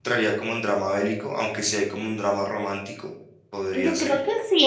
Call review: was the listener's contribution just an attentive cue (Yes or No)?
No